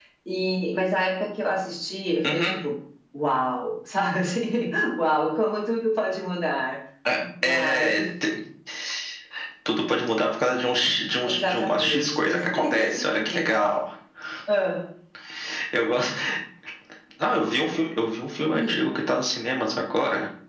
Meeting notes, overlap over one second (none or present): present